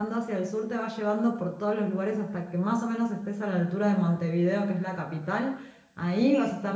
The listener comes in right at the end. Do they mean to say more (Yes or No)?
No